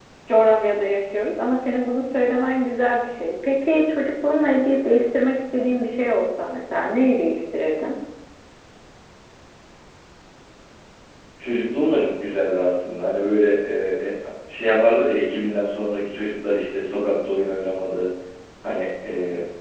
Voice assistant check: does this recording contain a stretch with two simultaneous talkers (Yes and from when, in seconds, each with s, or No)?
No